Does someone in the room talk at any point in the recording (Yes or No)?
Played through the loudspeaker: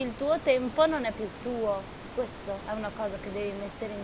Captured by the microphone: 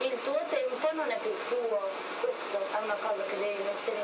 No